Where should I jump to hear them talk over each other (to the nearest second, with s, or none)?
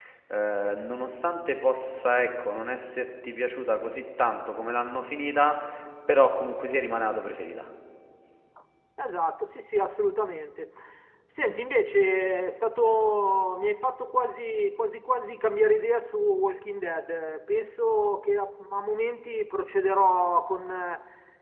none